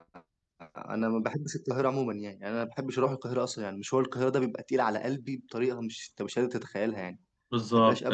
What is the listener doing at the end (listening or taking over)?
taking over